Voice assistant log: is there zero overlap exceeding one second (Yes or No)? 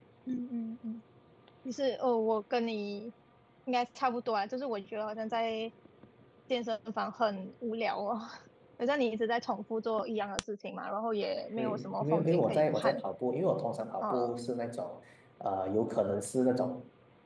No